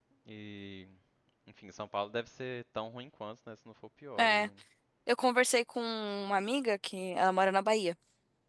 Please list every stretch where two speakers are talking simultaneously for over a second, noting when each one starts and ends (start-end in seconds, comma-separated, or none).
none